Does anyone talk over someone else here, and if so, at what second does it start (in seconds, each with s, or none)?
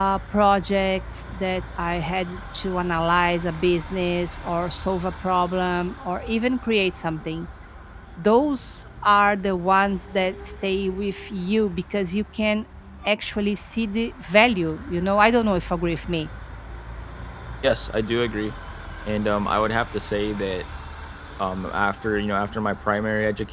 none